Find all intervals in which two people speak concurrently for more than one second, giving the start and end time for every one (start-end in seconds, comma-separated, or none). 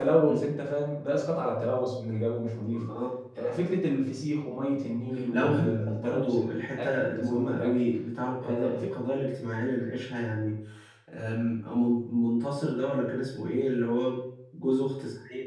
5.3-7.8